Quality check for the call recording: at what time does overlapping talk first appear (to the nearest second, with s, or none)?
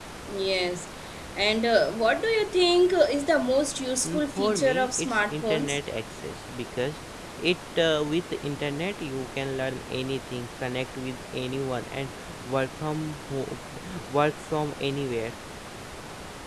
4 s